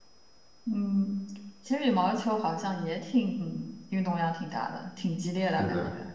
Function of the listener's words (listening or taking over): taking over